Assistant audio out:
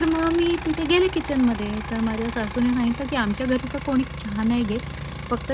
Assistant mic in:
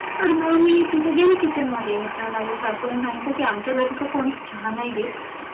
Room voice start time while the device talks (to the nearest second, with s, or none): none